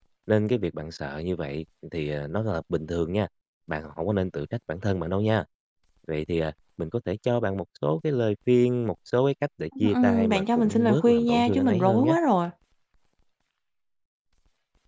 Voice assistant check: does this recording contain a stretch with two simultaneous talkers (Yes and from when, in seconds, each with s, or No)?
Yes, from 9.8 s